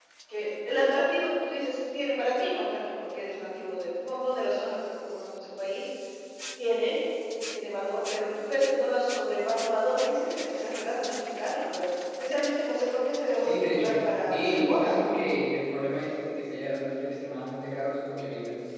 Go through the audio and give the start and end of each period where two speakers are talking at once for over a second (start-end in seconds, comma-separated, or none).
13.4-15.2